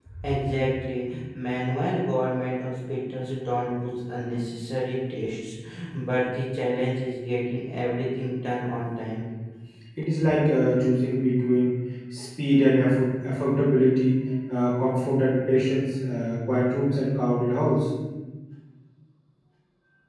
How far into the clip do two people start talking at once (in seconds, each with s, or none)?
none